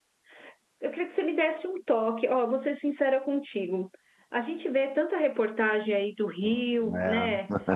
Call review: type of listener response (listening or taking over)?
listening